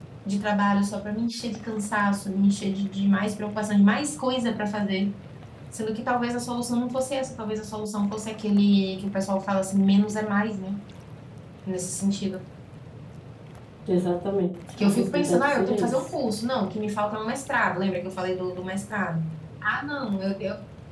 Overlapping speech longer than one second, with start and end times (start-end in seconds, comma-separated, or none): 14.8-16.1